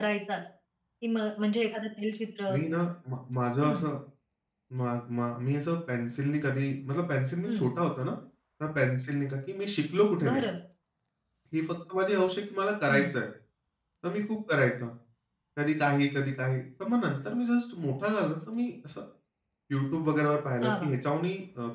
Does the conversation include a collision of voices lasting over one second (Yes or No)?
No